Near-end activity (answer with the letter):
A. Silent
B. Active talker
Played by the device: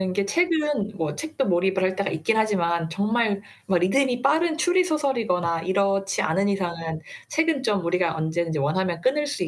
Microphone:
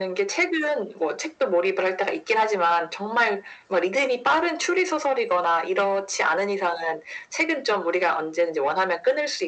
A